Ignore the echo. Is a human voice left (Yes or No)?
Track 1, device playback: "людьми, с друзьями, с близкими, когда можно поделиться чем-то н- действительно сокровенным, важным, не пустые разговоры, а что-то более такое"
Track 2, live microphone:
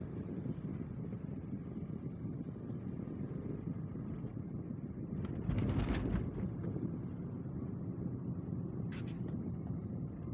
No